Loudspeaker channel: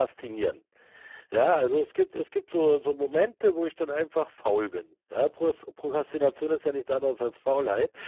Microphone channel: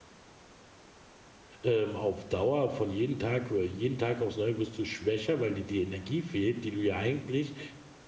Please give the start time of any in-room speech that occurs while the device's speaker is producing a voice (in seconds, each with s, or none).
1.6 s